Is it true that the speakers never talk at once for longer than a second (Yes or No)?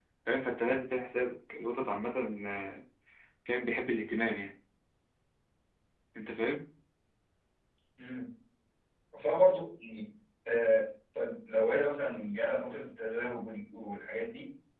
Yes